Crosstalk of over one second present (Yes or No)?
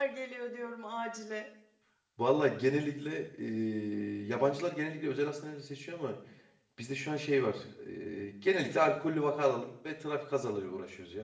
No